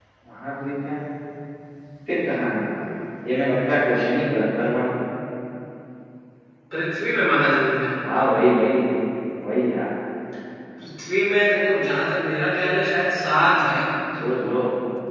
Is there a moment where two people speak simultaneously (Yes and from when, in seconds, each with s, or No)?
No